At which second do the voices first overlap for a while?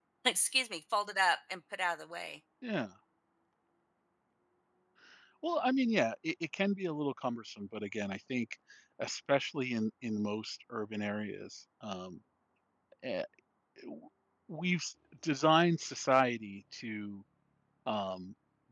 none

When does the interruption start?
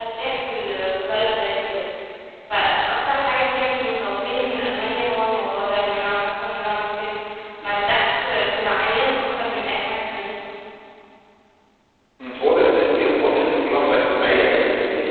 none

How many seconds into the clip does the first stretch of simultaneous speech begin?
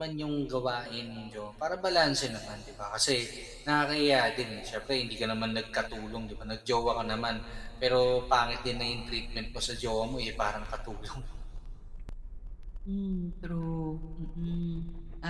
none

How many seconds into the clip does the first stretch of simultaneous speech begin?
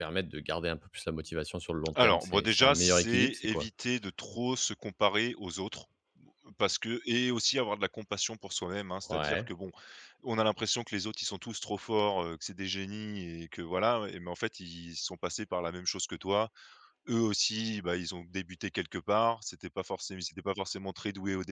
2.0 s

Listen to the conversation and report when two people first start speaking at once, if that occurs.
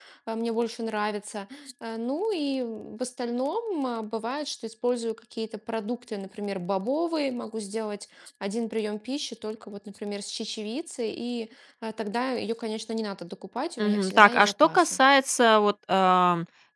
13.8 s

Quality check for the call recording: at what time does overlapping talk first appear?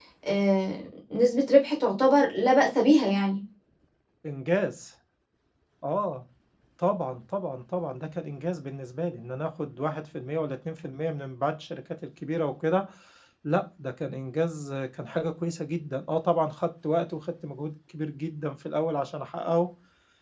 none

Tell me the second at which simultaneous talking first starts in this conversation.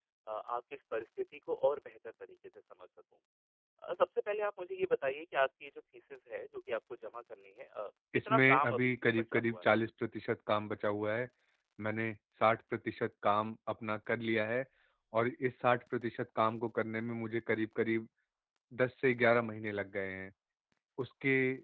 8.1 s

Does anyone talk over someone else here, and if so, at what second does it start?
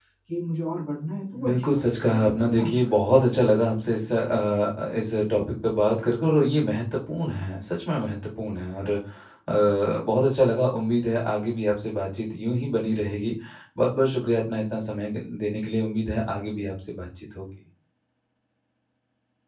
1.3 s

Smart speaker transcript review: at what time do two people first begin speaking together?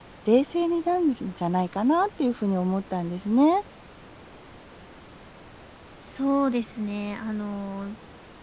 none

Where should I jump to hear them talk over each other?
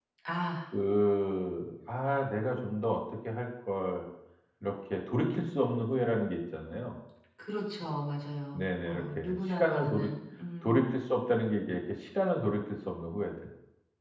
8.5 s

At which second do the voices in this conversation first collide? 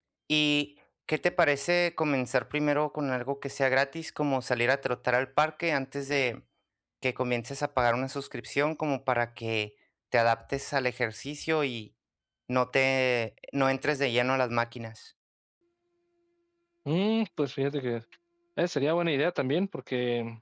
none

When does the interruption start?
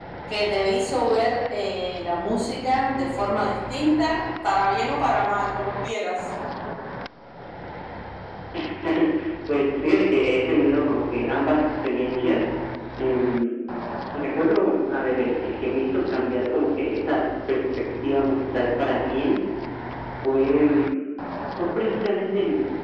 none

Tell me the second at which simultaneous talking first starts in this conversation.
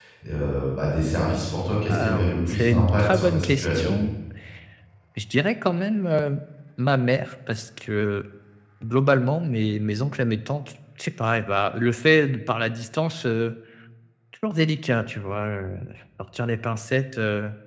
1.9 s

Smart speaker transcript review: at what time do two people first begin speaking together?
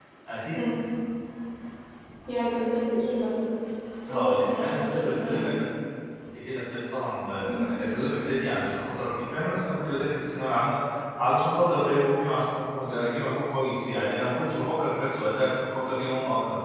4.1 s

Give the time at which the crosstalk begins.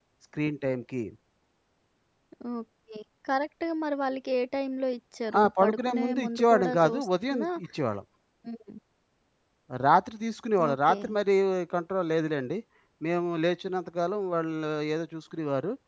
5.4 s

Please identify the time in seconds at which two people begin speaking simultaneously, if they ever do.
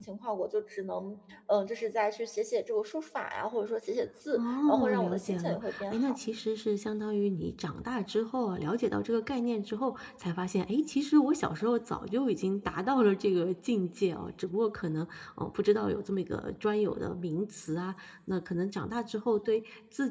4.3 s

